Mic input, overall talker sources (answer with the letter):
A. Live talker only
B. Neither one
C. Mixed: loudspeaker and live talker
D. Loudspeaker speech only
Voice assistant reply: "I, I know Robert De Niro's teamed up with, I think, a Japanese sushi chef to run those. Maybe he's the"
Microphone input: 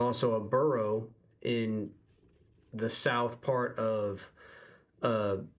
A